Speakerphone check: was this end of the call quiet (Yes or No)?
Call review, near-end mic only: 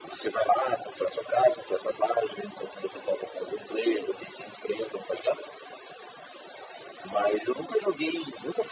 Yes